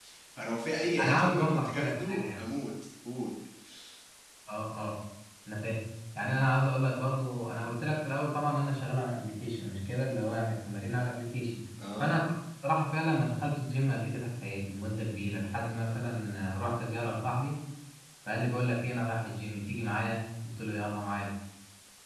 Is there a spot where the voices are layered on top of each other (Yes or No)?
Yes